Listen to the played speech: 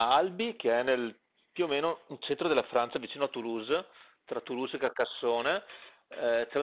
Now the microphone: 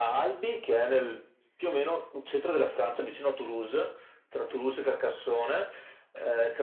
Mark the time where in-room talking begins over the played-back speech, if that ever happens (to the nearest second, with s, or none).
none